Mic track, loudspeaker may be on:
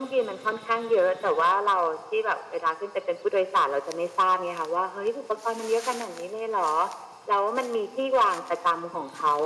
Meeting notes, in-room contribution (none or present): none